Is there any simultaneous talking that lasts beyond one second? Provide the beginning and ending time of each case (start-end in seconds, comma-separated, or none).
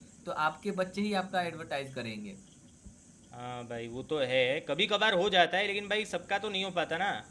none